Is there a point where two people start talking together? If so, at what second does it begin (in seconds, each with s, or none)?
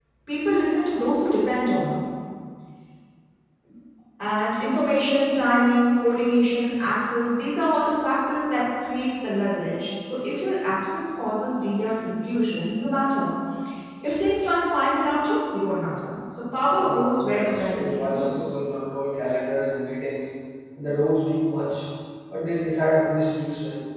16.7 s